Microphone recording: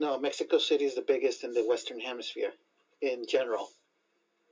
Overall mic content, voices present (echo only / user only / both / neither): echo only